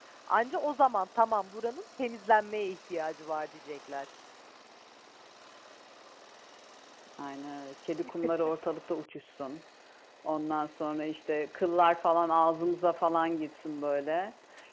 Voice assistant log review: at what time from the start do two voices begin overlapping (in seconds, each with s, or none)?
none